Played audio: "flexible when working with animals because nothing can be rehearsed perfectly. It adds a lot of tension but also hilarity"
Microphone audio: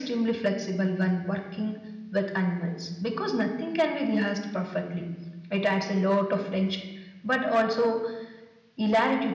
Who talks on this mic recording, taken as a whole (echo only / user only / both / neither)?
echo only